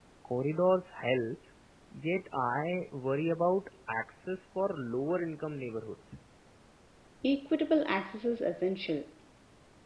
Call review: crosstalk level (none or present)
none